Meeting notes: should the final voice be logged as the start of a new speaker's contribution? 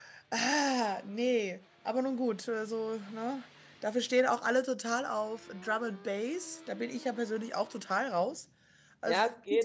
Yes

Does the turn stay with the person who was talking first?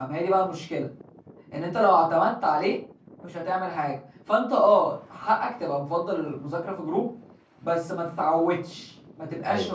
Yes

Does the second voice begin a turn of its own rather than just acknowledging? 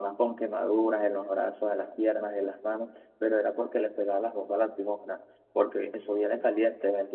No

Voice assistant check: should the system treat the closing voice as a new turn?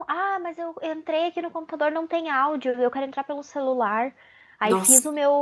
No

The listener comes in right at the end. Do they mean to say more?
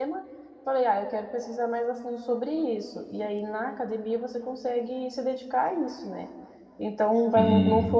No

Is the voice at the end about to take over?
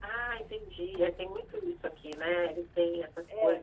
Yes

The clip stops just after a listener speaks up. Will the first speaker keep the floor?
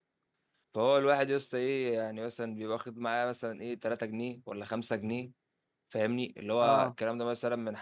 Yes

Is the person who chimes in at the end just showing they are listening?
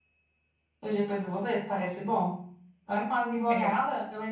Yes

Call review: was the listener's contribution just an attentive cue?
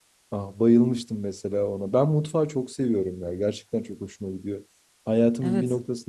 Yes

